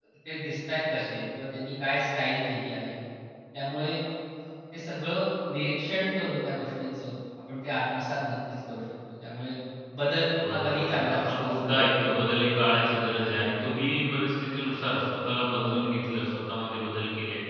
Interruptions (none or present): present